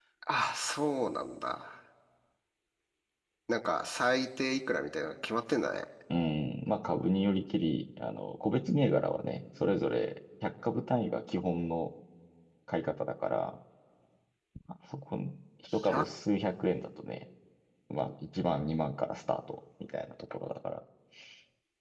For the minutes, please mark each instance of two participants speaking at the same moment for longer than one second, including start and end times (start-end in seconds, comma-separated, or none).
none